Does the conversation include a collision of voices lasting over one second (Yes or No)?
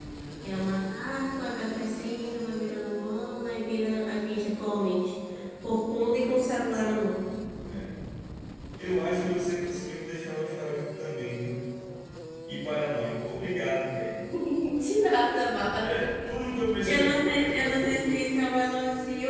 Yes